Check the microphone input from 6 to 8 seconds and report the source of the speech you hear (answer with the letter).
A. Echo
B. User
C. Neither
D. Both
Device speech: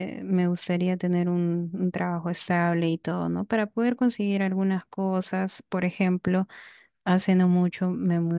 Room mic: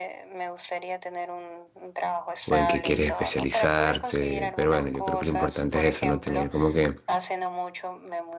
D